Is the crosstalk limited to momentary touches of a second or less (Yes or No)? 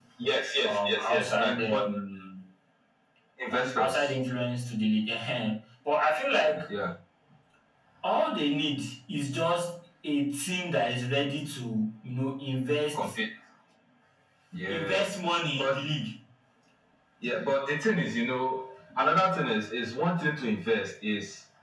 No